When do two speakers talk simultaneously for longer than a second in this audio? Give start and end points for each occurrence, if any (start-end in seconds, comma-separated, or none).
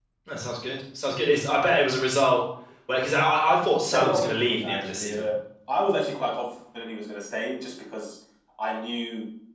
3.9-5.3